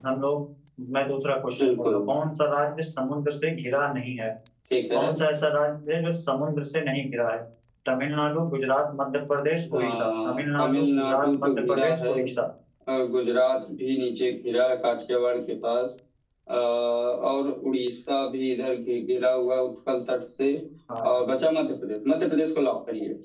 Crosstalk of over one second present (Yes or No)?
Yes